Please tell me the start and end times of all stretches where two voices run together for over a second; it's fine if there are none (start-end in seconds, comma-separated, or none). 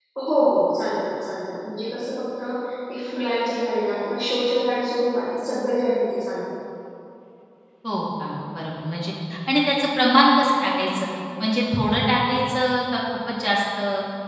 none